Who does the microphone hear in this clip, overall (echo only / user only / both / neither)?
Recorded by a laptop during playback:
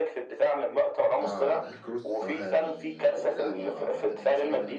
both